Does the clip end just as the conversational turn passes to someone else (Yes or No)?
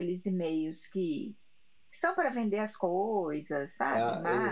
Yes